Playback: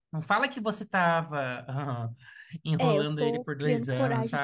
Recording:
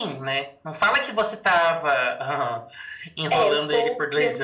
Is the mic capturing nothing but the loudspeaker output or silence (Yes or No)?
Yes